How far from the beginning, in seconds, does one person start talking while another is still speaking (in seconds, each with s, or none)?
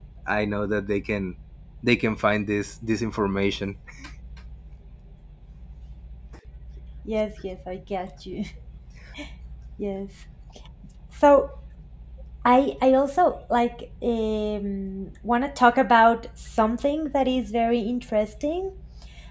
none